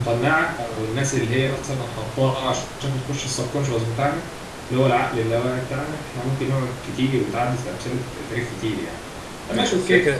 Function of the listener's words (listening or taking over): listening